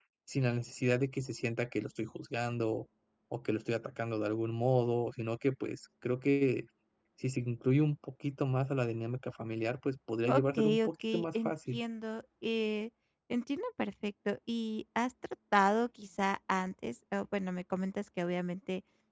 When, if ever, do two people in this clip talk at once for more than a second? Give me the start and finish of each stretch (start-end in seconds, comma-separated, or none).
10.3-11.8